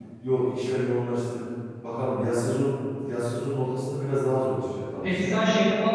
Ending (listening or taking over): taking over